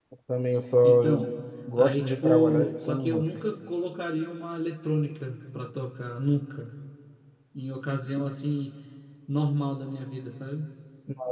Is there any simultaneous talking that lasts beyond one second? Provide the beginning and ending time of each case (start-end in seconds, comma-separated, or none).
1.8-3.3